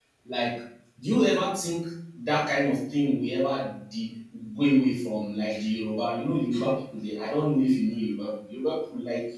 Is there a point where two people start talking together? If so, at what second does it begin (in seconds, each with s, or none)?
none